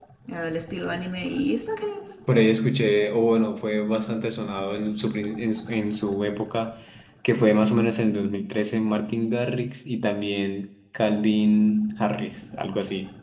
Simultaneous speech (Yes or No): No